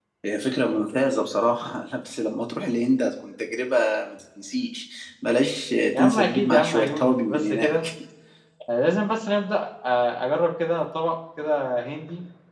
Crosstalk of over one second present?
Yes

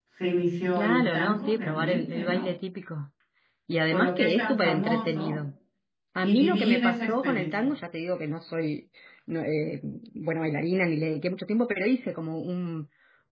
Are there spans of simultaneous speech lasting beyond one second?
Yes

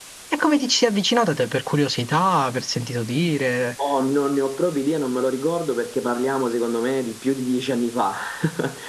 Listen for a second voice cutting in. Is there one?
No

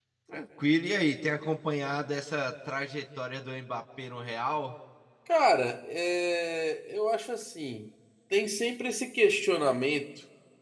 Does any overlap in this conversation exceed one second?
No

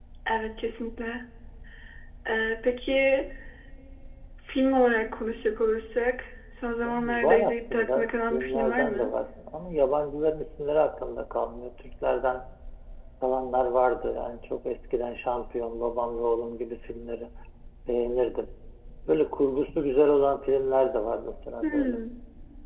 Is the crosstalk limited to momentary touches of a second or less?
No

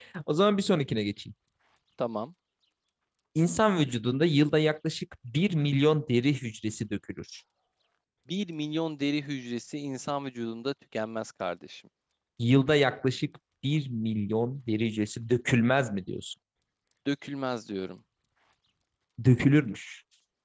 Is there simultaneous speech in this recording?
No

